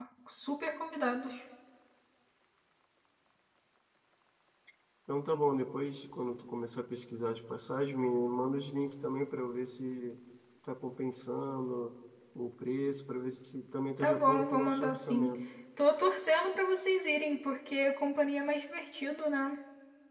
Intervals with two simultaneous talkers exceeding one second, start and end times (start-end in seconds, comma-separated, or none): 14.0-15.3